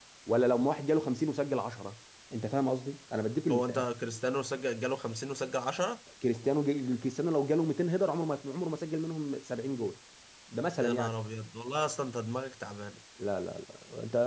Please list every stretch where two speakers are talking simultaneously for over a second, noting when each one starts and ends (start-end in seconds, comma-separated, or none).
none